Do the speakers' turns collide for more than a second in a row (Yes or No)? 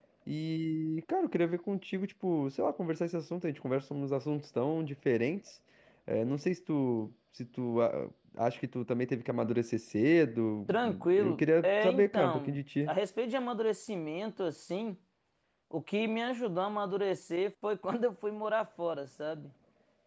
Yes